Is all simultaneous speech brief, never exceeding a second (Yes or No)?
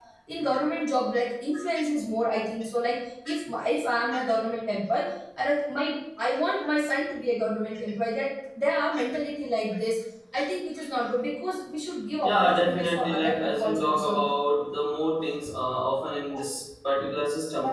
No